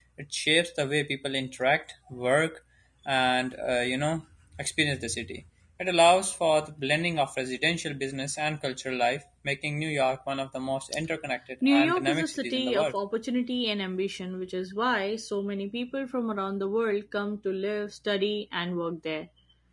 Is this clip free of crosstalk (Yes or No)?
No